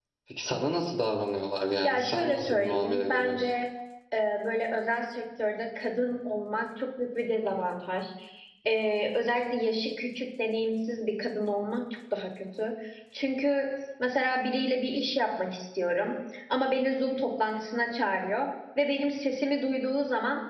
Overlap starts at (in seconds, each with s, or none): 1.8 s